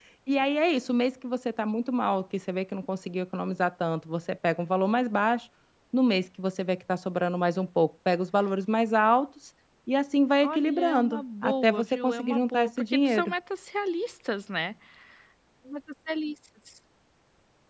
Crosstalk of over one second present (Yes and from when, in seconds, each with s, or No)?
Yes, from 10.4 s